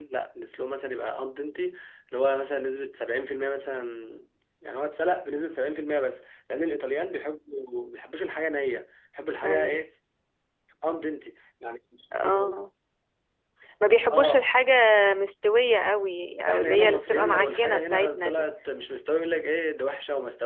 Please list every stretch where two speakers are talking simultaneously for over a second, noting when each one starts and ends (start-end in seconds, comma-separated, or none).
16.5-18.5